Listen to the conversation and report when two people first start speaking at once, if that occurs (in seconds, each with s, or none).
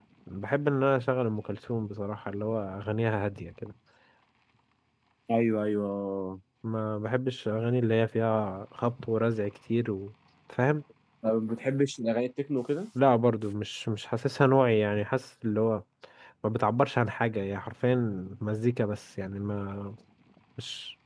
none